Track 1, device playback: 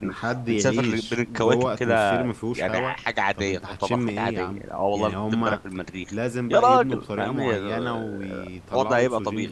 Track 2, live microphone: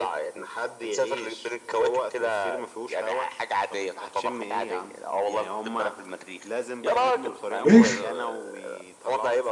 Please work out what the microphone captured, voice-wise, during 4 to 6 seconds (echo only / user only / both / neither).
echo only